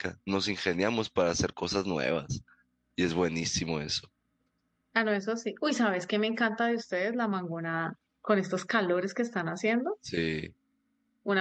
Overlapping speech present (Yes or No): No